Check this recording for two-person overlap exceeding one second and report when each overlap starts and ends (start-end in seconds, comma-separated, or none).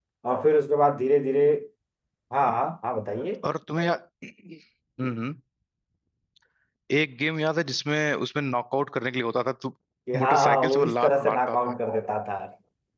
10.2-11.6